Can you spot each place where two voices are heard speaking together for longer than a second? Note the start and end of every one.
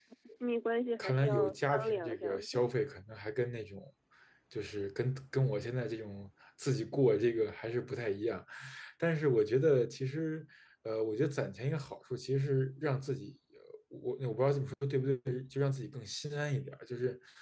1.0-2.8

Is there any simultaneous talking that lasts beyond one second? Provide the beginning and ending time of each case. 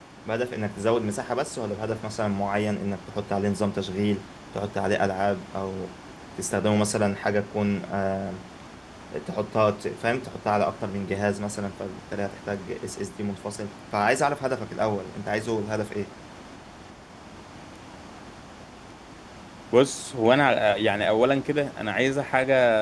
none

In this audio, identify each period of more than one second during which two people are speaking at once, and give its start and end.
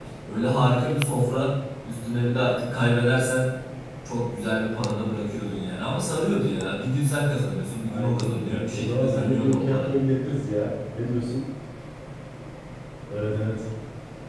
7.9-9.9

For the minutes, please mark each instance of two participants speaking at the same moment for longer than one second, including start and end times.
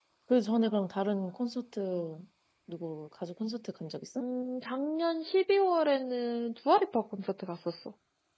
none

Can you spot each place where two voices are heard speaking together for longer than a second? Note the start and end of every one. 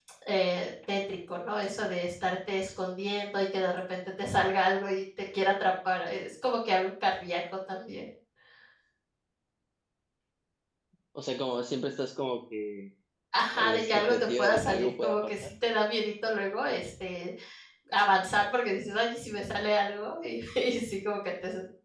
13.5-15.5

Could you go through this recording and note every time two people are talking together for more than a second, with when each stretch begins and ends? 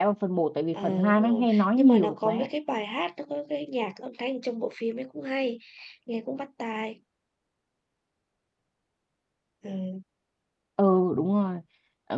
0.7-2.4

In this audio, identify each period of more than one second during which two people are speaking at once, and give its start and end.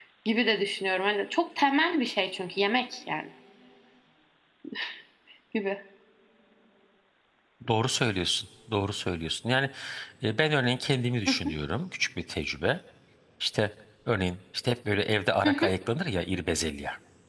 none

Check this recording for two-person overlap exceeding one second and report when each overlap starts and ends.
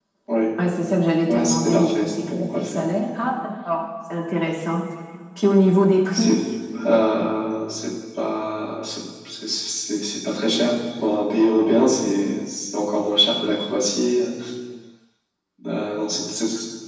1.3-2.8

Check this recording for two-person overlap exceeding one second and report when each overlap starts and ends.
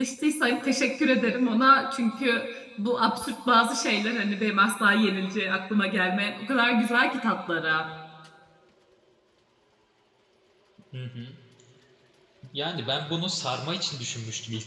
none

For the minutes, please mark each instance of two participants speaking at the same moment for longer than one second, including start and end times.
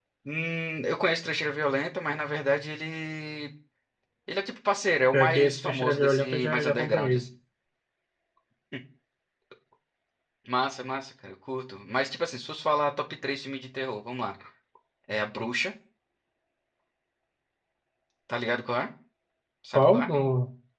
5.1-7.2

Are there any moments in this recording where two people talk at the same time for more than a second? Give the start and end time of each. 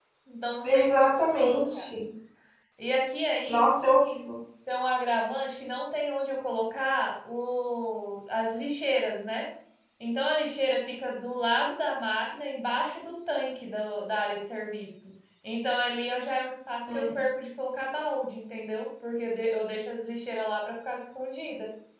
0.6-1.9

